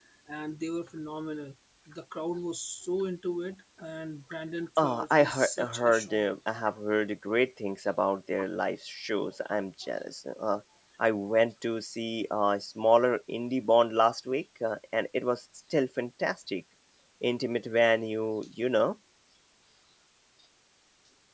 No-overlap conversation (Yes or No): No